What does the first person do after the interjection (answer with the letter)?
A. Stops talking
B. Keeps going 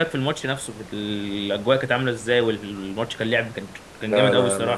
A